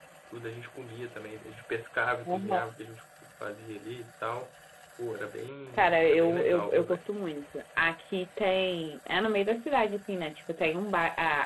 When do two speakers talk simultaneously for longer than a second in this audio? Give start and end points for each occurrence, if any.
5.8-7.1

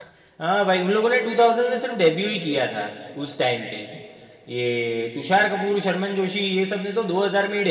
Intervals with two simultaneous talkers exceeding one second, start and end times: none

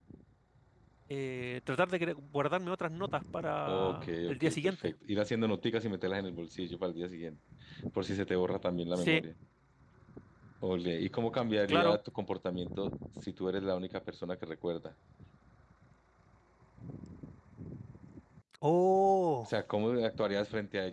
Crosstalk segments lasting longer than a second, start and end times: 3.7-4.9

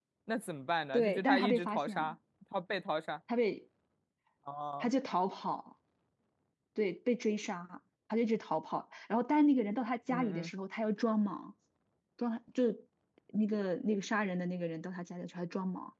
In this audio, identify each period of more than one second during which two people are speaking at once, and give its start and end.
0.9-2.1

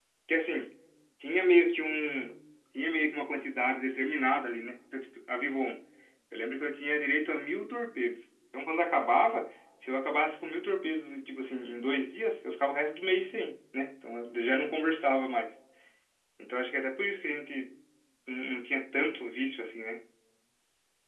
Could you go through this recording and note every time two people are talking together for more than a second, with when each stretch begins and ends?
none

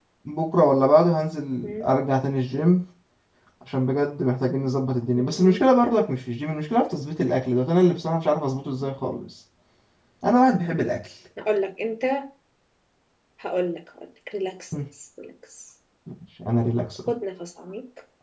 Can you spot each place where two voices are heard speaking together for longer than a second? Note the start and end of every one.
none

